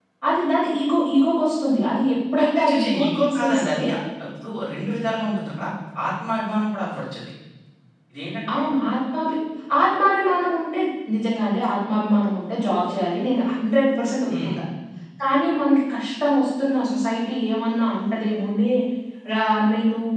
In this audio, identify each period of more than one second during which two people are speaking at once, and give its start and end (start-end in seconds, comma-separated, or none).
2.4-3.8